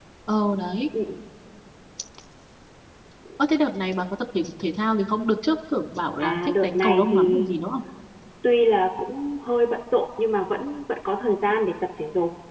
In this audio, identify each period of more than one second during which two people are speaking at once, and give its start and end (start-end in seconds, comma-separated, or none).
6.2-7.5